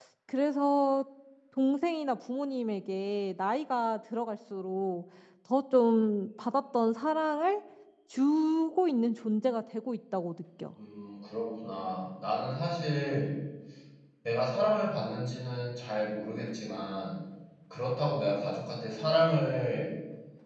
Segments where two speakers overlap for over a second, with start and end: none

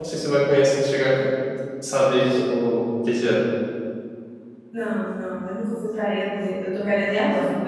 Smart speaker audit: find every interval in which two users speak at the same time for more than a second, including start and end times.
none

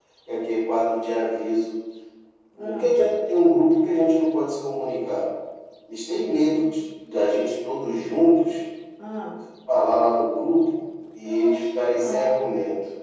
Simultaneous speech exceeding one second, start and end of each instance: 11.2-12.5

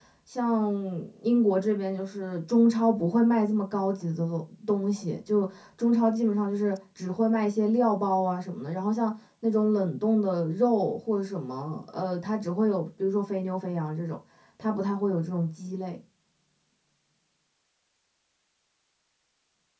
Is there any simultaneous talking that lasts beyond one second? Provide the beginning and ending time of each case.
none

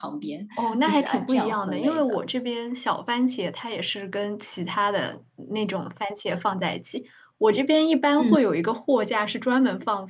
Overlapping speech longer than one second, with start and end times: 0.8-2.2

